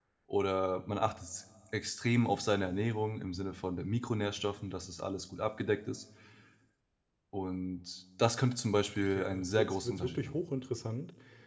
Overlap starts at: 9.2 s

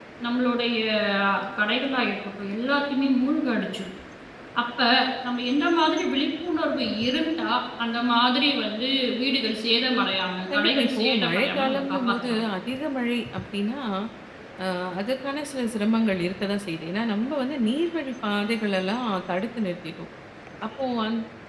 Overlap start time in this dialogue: 10.5 s

